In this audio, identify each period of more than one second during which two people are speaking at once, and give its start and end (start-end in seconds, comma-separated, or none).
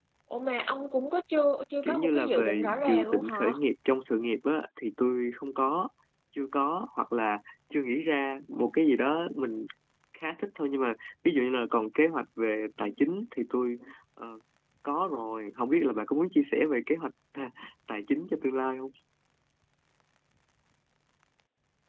1.8-3.5